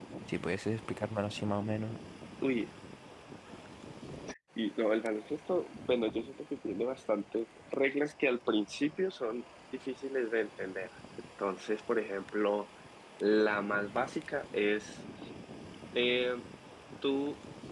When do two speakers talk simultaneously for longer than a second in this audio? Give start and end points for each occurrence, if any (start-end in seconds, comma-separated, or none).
none